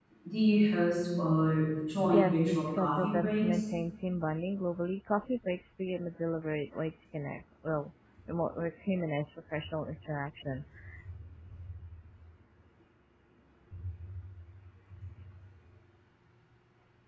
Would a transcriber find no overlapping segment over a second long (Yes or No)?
No